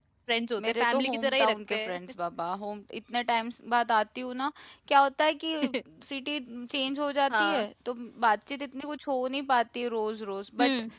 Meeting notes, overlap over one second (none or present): present